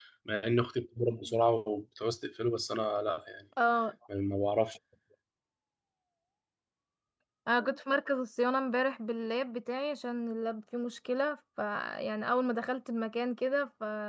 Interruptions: none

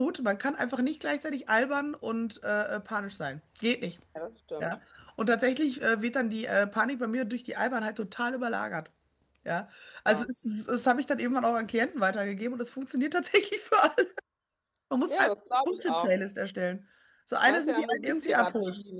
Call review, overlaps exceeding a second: present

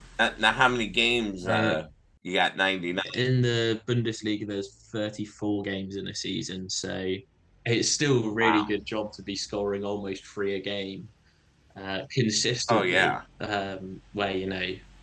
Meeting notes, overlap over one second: none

